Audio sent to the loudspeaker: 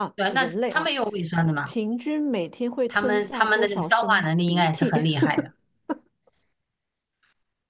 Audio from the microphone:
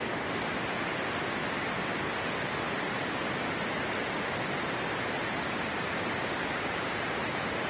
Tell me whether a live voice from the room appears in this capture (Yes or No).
No